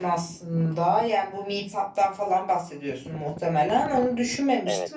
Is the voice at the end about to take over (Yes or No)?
No